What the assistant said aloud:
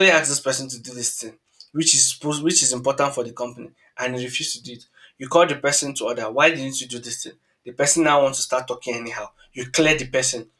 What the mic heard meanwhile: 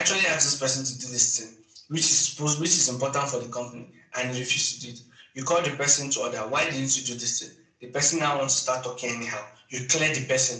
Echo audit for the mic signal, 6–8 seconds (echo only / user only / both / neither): echo only